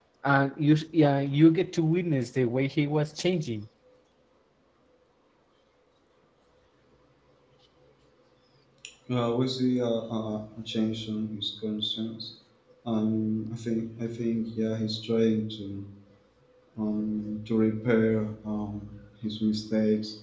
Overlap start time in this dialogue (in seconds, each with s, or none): none